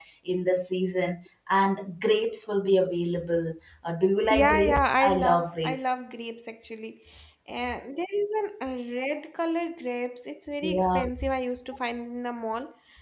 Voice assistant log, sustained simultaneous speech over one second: present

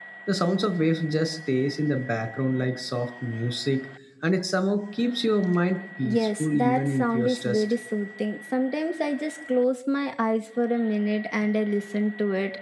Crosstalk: present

